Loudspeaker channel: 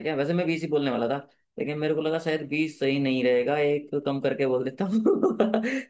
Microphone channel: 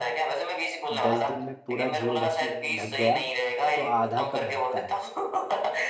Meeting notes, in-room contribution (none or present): present